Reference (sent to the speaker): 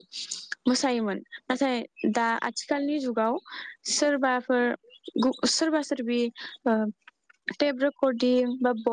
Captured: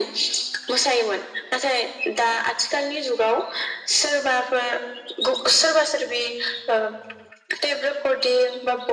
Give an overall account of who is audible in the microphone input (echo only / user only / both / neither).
echo only